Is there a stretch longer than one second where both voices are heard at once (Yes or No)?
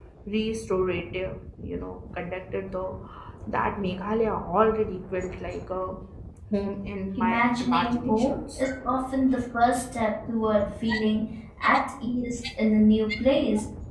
Yes